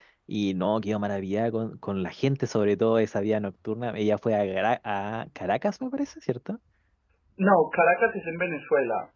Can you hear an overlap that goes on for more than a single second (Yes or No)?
No